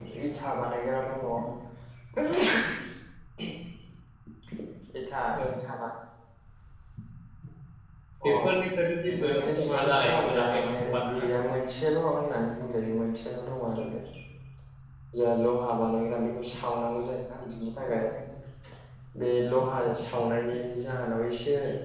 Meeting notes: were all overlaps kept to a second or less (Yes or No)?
No